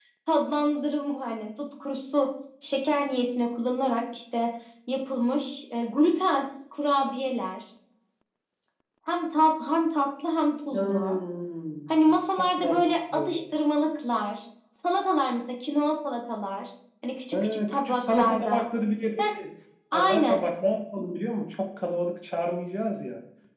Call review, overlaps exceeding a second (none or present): present